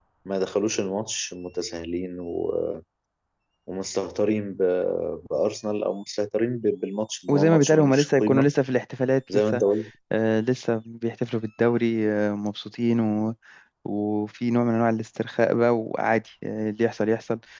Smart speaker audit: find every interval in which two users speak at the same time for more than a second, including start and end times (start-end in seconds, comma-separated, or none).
7.3-8.5